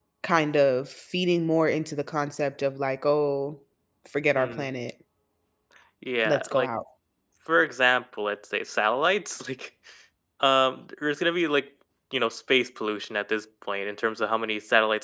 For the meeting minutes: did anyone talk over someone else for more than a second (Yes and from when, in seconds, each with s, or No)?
No